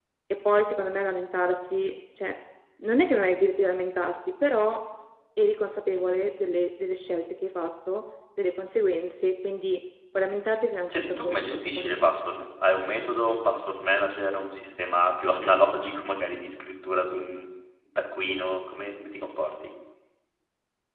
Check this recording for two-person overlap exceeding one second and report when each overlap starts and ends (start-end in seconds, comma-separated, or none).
10.9-12.1